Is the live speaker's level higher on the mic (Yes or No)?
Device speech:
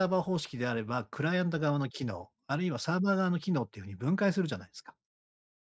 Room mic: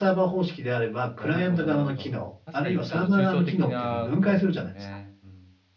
No